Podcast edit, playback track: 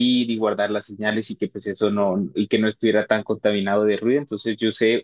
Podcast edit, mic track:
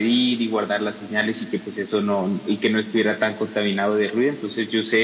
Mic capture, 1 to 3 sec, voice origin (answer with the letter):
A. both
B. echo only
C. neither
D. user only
B